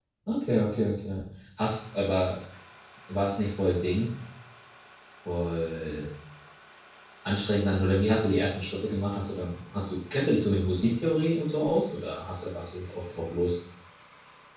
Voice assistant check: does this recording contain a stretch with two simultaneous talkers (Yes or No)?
No